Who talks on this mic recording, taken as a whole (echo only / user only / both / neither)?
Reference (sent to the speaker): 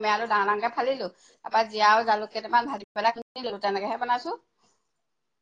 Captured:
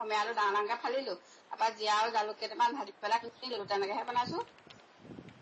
echo only